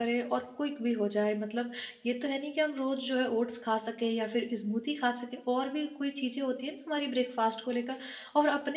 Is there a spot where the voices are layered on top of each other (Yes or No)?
No